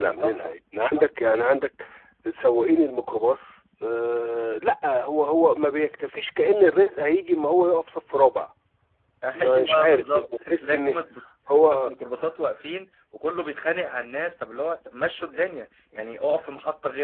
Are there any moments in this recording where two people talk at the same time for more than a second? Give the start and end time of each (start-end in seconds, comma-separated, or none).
9.3-11.0